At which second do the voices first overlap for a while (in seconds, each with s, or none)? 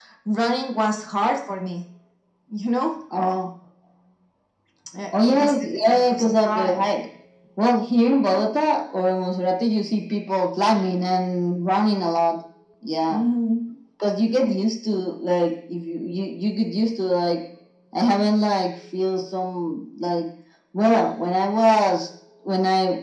5.2 s